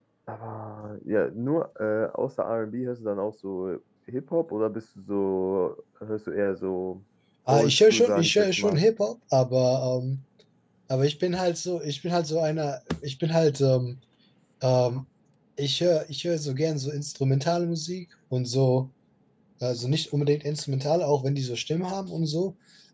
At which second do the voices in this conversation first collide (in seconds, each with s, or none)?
7.5 s